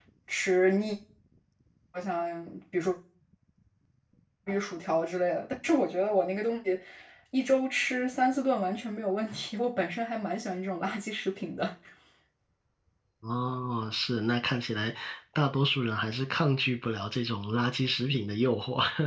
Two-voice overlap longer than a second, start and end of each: none

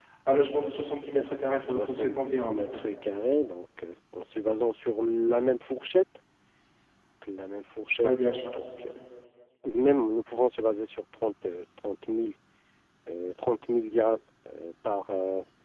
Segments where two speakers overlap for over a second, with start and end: 1.3-2.8

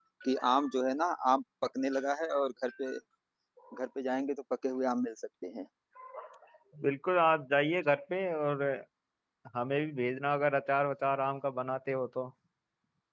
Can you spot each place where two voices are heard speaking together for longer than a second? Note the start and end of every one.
none

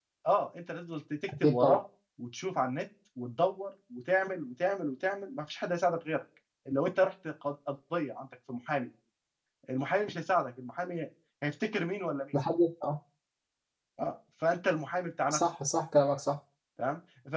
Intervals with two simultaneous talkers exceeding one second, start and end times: none

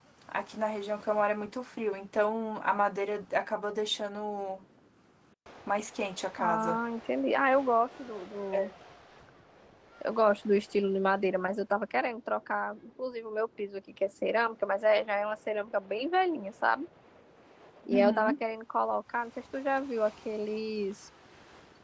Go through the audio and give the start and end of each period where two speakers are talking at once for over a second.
none

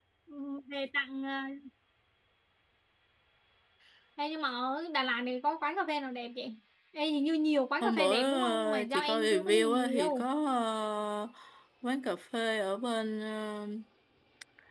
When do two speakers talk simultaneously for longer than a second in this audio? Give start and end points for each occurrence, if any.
7.8-10.3

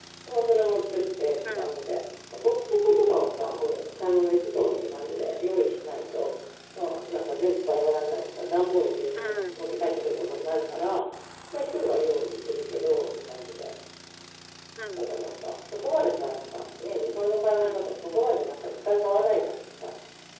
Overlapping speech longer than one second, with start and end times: none

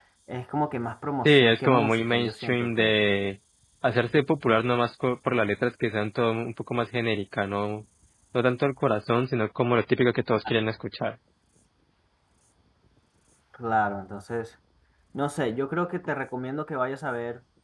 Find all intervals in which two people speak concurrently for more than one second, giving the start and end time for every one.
1.2-3.0

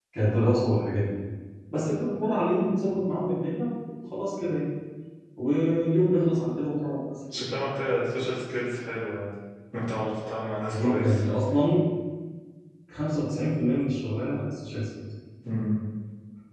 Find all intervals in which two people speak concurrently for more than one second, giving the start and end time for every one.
none

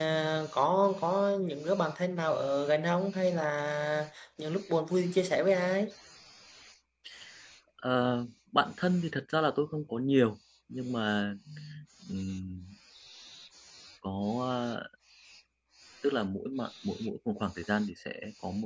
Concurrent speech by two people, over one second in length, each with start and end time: none

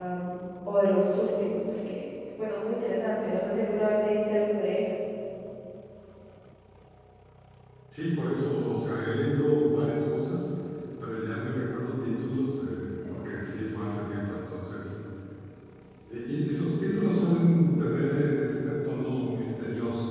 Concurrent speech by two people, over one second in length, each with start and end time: none

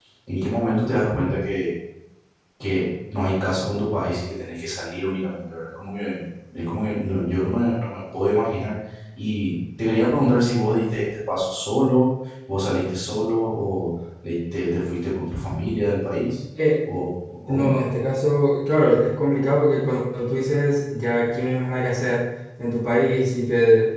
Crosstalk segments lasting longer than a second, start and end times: none

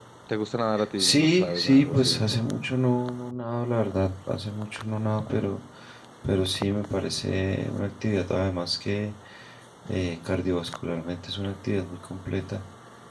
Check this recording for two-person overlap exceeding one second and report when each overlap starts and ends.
1.0-2.2

